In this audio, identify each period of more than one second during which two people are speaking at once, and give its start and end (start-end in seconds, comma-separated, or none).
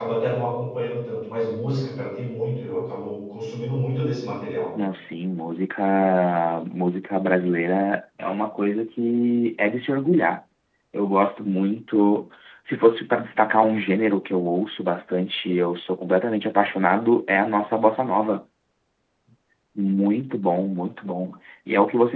none